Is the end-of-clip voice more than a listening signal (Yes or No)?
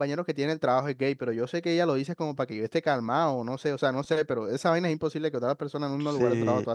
Yes